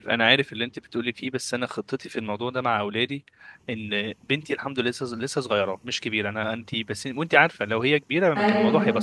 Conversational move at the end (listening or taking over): listening